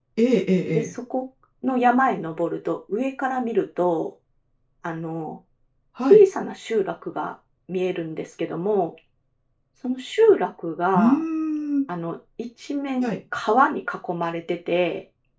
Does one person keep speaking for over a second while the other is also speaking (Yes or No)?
No